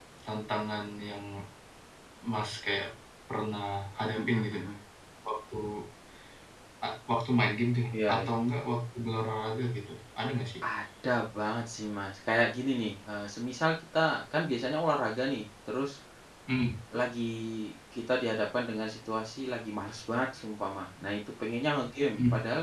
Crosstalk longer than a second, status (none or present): none